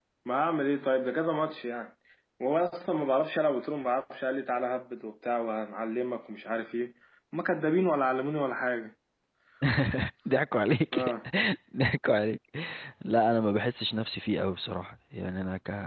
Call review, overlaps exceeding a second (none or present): none